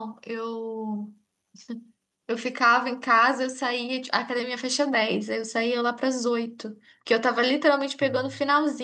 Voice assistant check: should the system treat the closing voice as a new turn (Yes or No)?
No